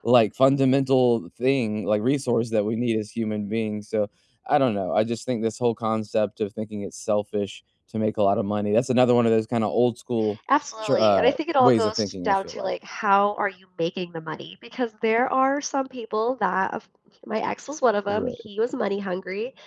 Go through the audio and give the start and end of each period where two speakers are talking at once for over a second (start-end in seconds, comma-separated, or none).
10.8-12.7